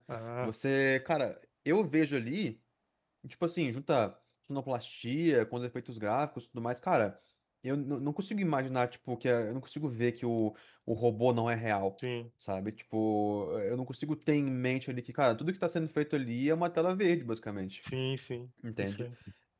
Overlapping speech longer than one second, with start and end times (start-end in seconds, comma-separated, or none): none